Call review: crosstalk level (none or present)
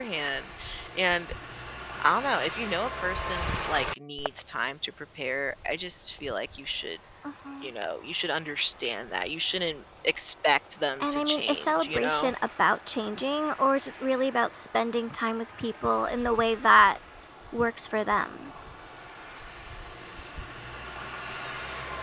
present